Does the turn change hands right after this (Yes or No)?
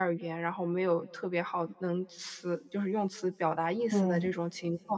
No